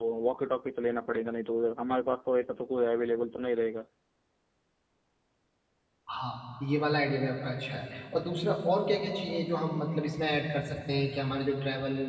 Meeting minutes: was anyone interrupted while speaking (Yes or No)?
No